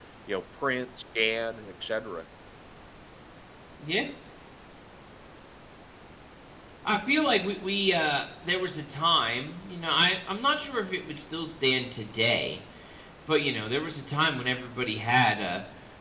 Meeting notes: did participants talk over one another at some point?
No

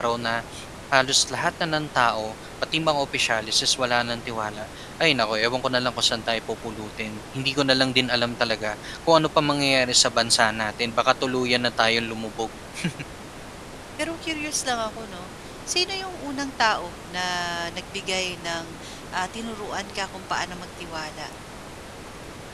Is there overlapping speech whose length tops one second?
No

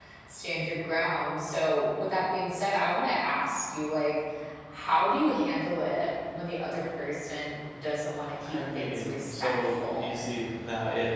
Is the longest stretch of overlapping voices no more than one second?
No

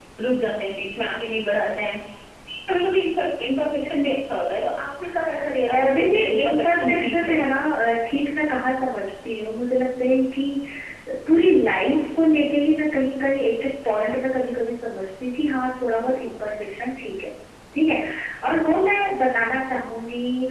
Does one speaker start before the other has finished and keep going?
Yes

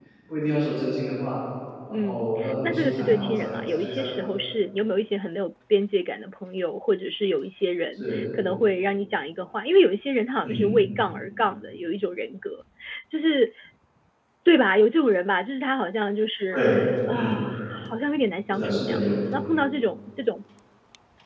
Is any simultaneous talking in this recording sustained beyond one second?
Yes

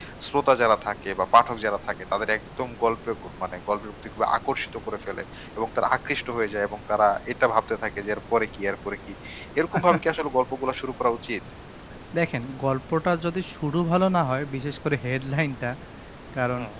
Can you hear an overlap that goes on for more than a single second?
No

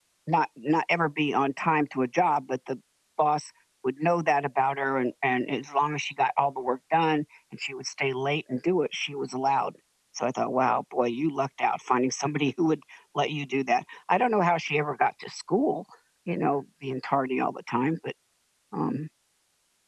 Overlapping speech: No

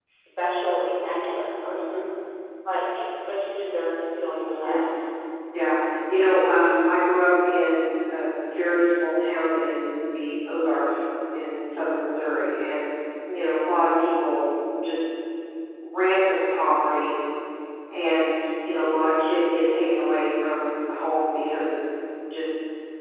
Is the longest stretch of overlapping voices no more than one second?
Yes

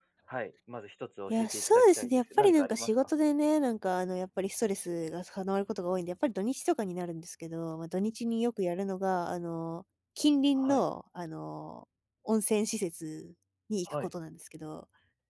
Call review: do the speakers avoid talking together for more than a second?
No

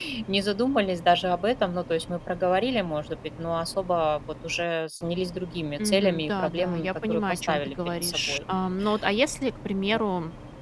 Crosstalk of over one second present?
Yes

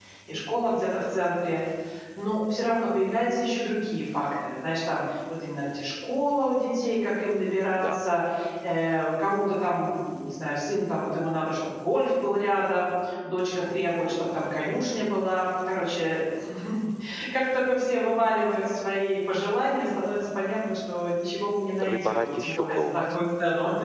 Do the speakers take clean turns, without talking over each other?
No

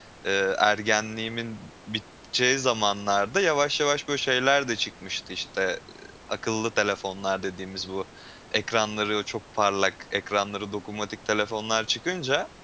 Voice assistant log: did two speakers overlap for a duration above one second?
No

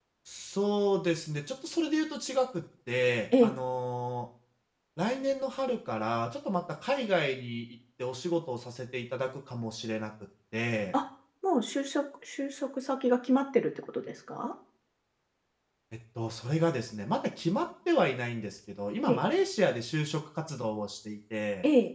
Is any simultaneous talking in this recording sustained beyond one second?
No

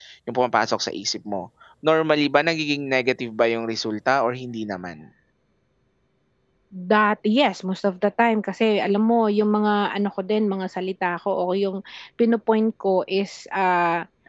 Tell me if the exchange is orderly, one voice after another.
Yes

